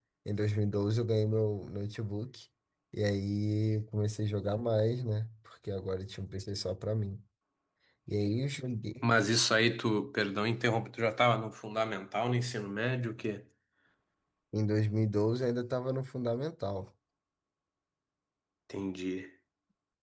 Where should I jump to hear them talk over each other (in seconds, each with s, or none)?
none